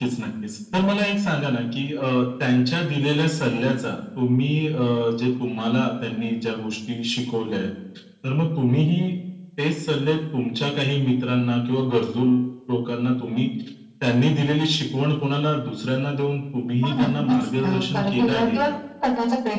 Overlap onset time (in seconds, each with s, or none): 16.8 s